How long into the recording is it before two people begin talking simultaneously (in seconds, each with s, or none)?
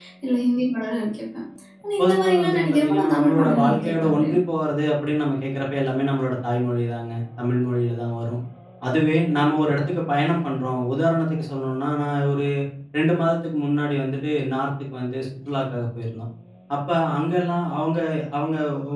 2.0 s